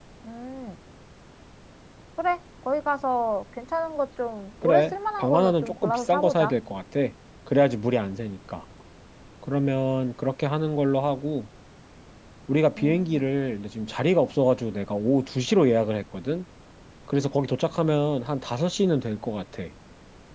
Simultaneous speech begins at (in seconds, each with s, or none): 4.6 s